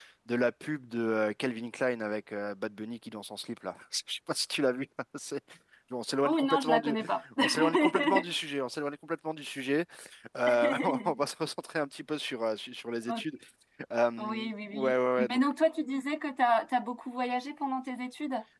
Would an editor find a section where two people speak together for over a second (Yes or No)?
Yes